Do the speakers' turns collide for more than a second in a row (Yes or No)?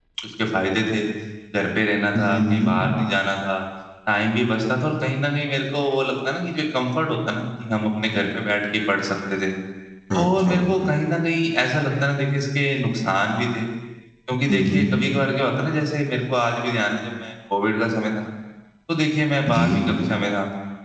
No